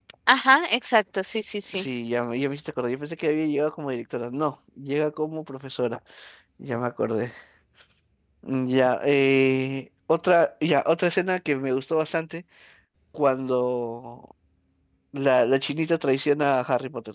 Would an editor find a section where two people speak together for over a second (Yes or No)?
No